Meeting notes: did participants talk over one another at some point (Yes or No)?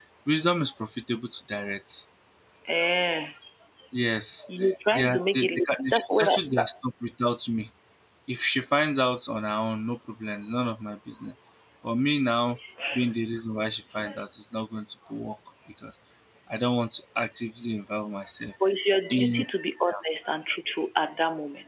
Yes